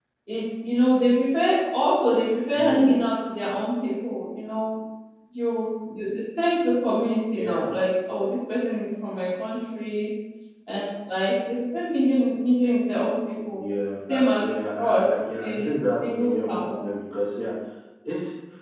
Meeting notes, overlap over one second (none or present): present